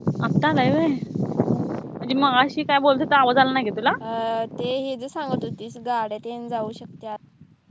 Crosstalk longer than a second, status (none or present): none